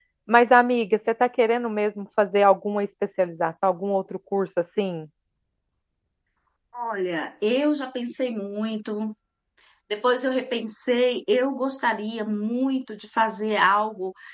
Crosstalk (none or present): none